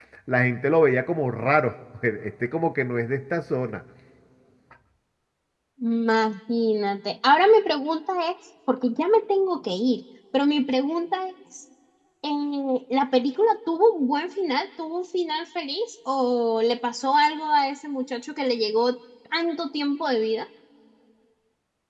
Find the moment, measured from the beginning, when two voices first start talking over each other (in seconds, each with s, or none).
none